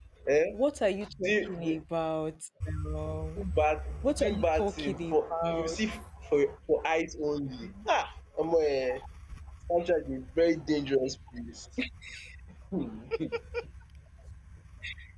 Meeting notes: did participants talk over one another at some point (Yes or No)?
Yes